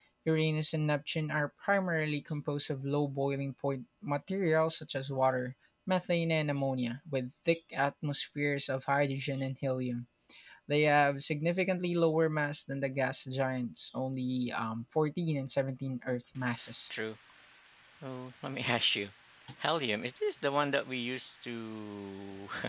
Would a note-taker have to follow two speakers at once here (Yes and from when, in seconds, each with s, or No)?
No